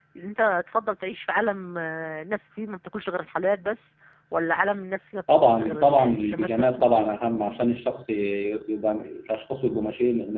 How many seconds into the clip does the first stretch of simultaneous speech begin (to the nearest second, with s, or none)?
5 s